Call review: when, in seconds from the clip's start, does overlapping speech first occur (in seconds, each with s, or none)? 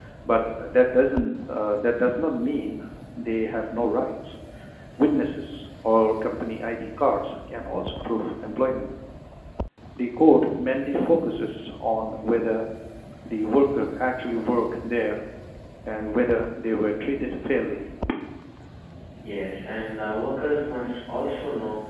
none